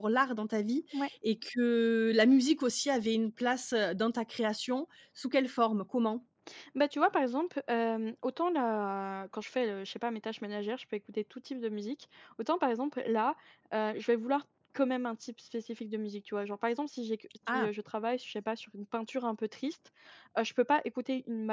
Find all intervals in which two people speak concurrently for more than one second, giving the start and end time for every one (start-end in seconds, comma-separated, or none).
none